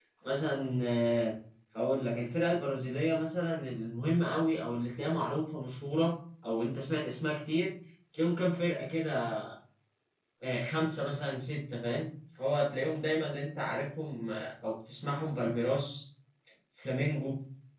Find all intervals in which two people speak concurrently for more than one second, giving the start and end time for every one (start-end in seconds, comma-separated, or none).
none